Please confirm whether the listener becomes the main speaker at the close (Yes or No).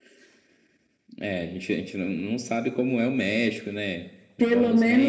Yes